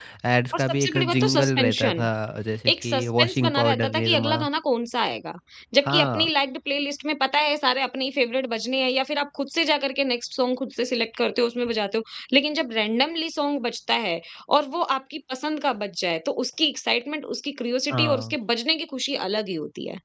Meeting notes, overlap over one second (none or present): present